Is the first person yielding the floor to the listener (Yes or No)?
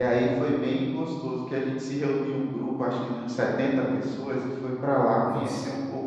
No